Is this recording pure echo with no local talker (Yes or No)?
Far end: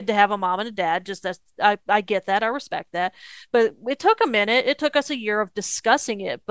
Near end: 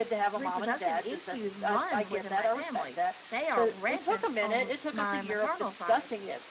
No